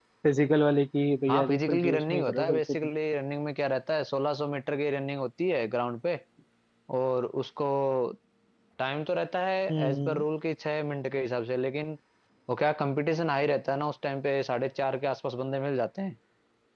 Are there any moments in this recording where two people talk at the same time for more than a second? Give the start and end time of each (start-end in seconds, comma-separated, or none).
1.3-2.9